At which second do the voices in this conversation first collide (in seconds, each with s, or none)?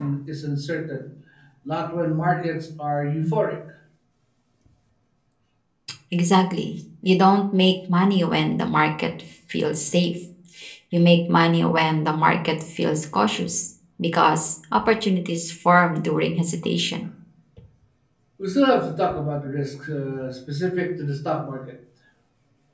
none